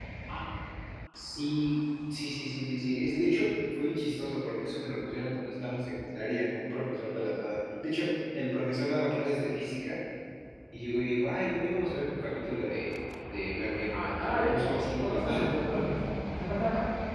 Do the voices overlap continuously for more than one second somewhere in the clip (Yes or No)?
Yes